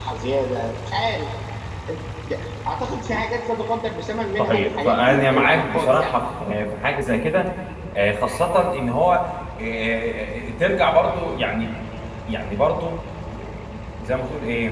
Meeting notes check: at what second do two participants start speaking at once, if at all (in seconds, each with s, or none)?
4.4 s